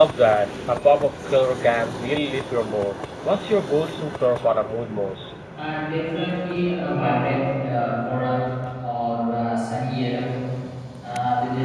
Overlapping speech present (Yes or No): No